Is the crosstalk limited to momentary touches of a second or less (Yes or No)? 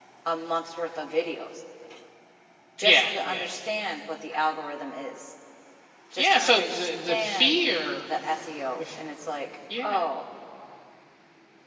No